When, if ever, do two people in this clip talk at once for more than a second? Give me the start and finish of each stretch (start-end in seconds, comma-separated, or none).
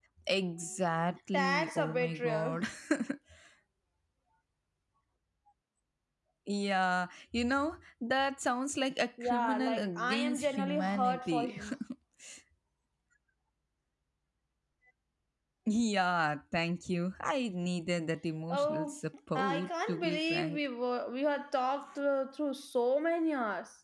1.3-2.5, 9.2-11.5, 19.4-20.6